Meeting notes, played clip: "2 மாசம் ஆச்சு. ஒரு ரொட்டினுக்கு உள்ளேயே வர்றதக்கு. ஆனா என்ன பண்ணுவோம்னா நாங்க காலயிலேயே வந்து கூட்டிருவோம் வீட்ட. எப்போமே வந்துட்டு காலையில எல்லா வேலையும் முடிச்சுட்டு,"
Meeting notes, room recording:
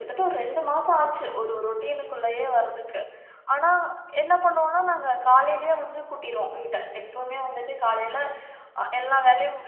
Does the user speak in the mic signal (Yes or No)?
No